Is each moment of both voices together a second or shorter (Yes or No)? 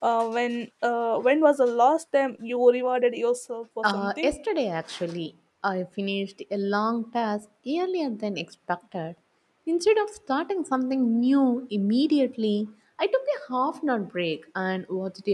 Yes